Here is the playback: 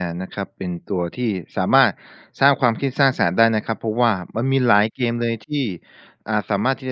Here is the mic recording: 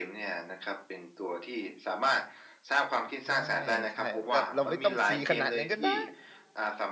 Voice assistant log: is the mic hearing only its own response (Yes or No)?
No